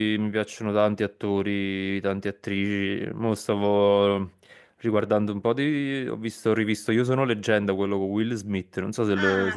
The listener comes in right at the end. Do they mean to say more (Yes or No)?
Yes